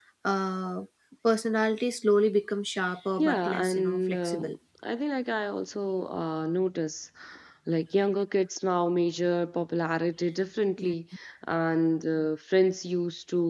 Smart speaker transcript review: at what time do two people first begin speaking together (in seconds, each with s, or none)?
3.2 s